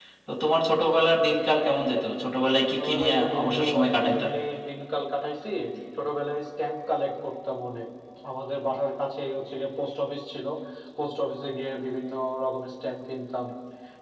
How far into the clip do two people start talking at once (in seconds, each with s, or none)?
2.7 s